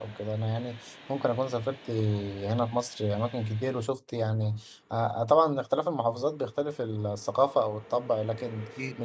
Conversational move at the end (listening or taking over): listening